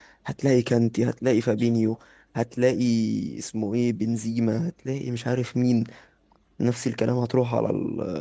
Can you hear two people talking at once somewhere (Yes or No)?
No